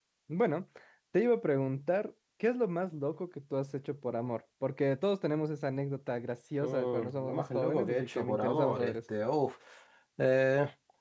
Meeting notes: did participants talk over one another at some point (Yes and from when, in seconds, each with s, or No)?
Yes, from 6.6 s